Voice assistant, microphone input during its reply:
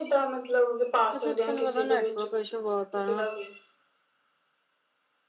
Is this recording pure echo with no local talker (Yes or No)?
No